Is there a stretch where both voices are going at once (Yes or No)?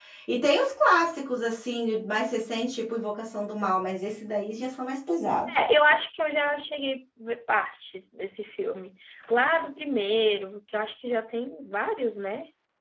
No